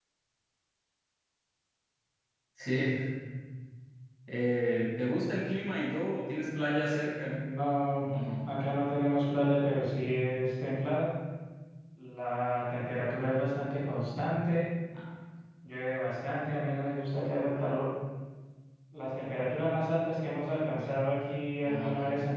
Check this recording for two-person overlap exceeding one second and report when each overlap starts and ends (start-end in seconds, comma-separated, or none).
none